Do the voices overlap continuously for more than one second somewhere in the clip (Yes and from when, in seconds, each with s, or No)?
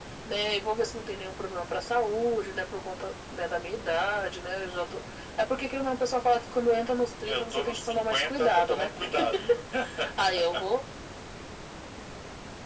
Yes, from 7.2 s